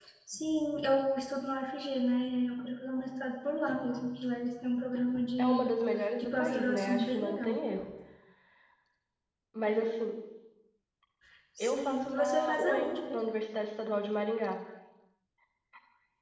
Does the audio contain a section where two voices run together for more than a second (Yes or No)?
Yes